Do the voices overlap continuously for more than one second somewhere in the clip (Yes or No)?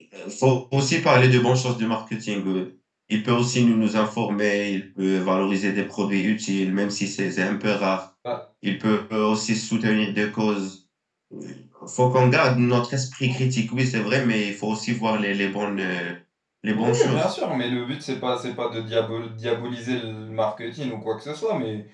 No